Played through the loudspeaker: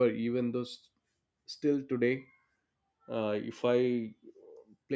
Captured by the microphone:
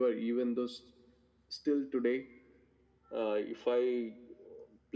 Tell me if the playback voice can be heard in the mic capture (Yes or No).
Yes